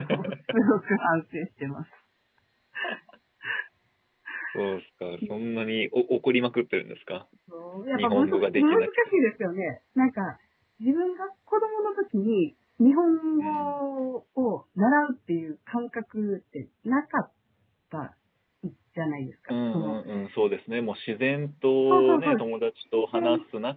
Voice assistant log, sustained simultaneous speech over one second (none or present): present